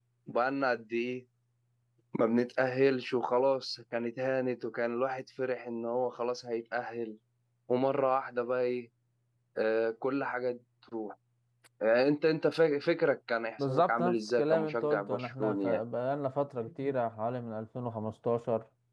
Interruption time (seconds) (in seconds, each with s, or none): 13.6 s